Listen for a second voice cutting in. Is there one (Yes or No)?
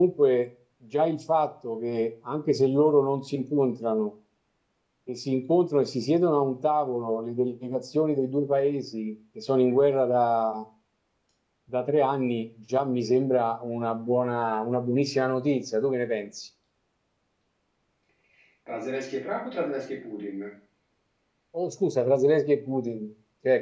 No